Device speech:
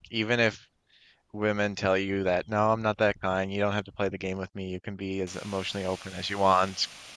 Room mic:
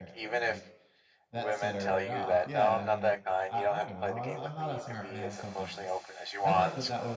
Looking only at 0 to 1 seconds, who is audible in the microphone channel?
both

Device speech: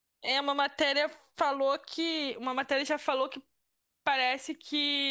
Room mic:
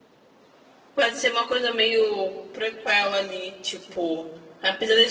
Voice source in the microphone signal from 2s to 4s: user only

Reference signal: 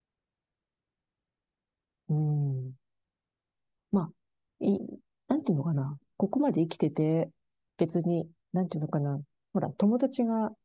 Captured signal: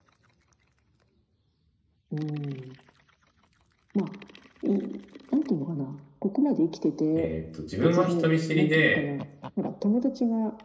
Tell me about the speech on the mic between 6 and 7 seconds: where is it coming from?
echo only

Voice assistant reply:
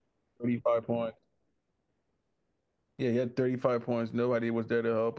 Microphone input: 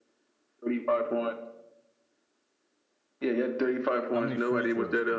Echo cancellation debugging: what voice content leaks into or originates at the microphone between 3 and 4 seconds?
echo only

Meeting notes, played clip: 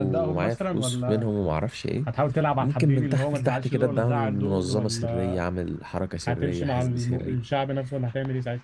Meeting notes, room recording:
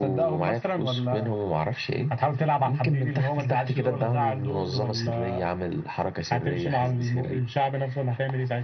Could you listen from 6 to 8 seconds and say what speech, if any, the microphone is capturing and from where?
echo only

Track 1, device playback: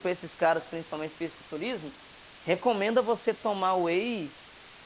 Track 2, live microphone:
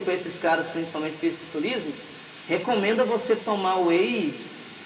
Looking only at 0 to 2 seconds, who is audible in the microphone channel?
echo only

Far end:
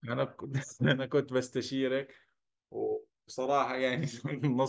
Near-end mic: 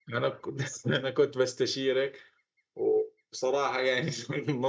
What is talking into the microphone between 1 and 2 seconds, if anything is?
echo only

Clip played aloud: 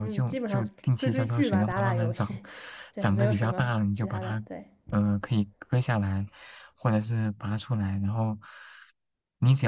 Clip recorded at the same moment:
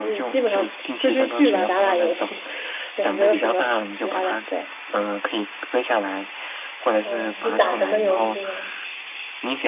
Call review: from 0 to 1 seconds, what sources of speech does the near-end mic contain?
echo only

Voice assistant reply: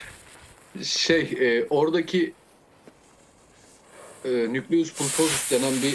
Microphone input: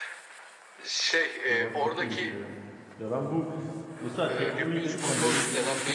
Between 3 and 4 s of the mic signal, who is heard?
user only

